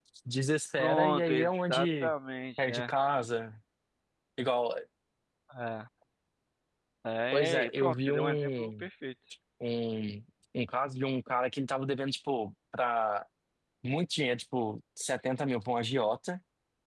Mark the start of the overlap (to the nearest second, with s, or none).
1 s